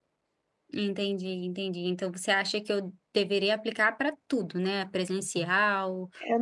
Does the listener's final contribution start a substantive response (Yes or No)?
Yes